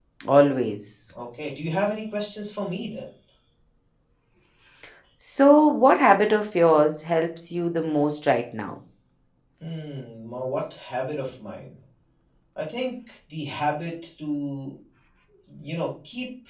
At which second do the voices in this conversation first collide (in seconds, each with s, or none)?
none